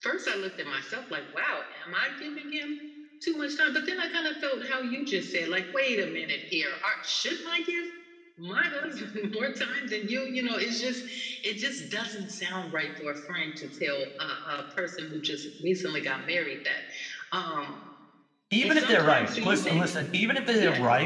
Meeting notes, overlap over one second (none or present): present